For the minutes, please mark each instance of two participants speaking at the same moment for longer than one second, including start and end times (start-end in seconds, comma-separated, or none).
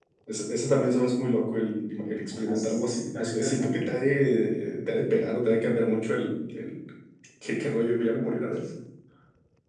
2.5-3.9